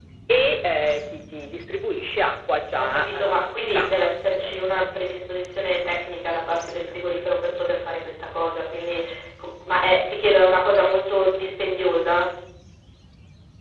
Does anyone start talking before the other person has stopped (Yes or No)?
Yes